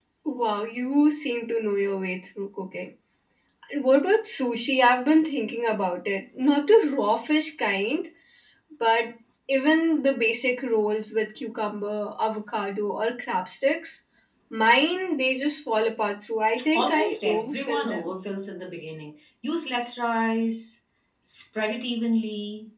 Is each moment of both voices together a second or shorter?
No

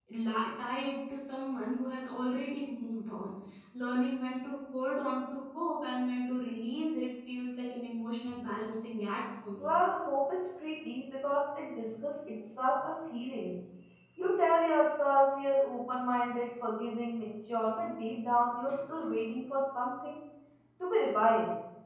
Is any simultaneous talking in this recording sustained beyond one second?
No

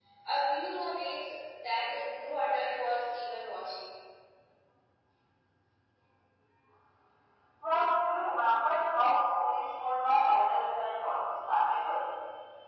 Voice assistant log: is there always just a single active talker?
Yes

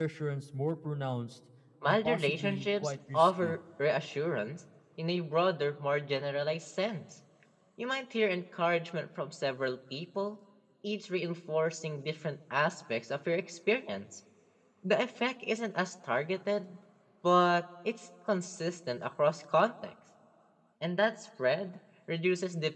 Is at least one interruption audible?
Yes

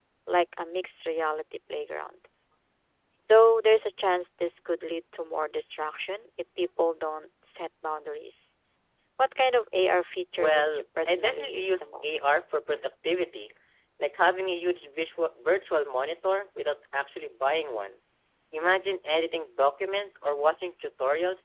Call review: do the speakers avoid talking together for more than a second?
No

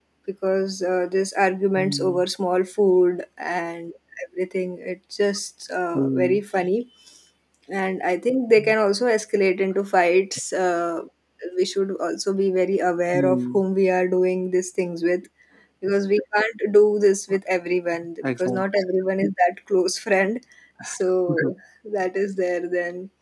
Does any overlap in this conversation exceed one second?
No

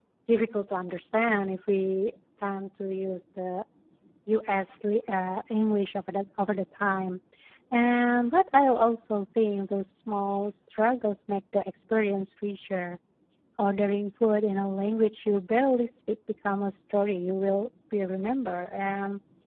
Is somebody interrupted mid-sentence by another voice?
No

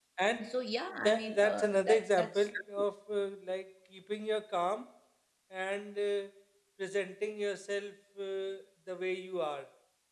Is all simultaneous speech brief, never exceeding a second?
No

